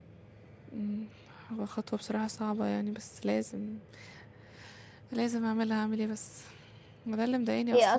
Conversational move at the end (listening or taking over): listening